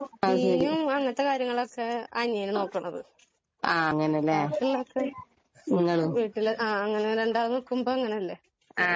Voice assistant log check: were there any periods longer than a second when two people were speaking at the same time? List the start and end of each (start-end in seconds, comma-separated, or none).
none